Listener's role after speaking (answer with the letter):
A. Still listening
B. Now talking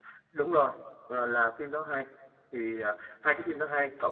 A